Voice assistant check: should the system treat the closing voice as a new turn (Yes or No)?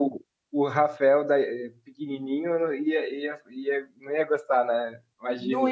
Yes